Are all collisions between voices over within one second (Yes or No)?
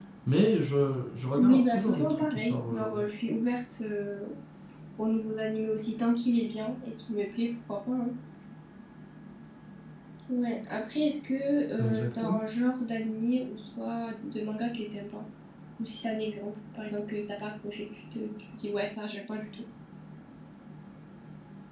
No